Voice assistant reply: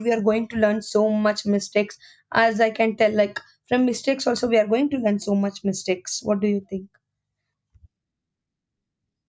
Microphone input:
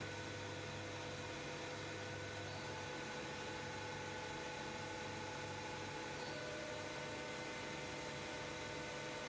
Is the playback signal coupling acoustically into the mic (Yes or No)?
No